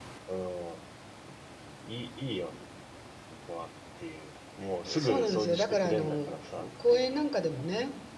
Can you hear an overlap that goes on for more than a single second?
Yes, from 4.9 s

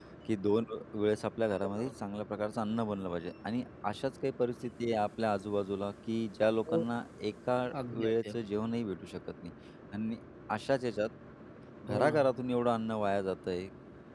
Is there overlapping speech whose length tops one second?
No

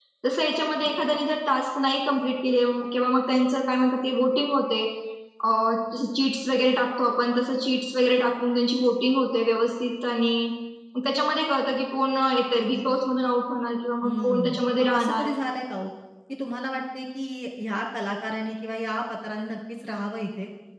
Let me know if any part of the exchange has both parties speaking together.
Yes, from 14.0 s

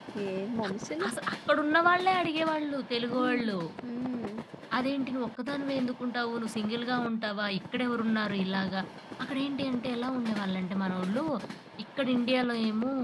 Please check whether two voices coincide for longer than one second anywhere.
No

